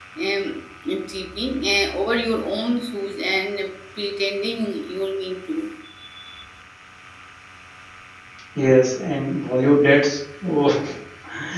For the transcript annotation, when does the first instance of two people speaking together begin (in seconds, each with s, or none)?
none